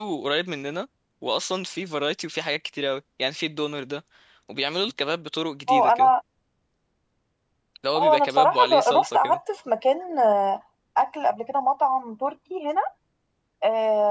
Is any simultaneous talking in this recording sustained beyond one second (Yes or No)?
Yes